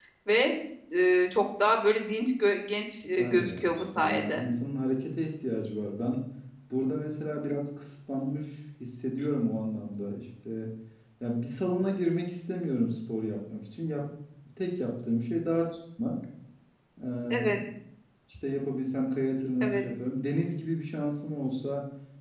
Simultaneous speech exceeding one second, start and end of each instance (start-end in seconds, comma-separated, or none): 3.2-4.4